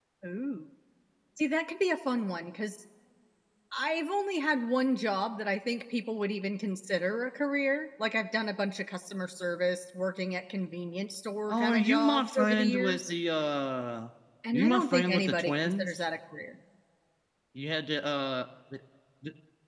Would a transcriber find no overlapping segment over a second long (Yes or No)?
No